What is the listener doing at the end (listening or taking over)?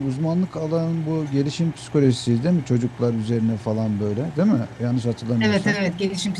taking over